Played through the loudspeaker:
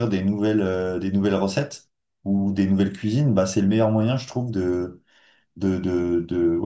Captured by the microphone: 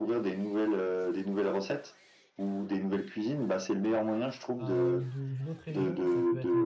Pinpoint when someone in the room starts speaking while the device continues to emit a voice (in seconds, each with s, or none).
4.5 s